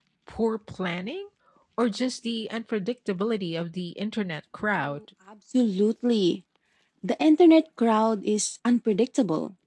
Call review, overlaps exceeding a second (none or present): none